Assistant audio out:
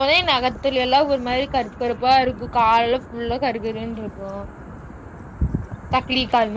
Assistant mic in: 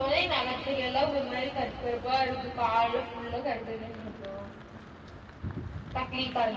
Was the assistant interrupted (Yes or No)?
No